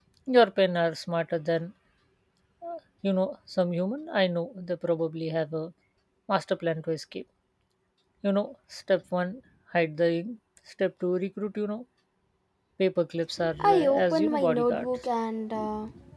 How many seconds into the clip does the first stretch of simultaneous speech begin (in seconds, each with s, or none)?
13.6 s